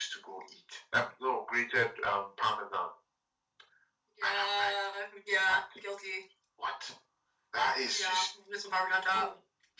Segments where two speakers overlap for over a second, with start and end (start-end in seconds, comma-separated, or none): none